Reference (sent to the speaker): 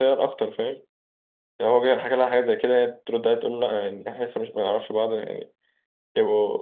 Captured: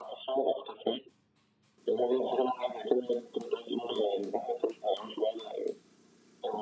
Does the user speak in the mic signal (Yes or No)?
No